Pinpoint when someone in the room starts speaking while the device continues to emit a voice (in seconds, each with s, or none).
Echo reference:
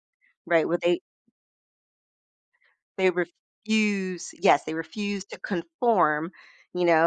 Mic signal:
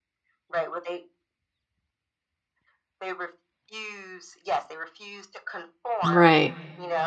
6.0 s